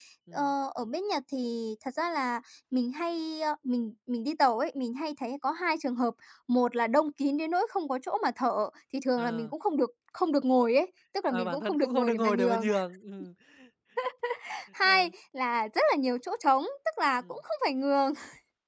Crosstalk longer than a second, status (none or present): present